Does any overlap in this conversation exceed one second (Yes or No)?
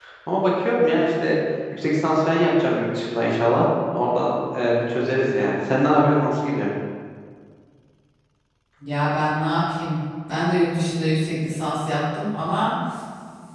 No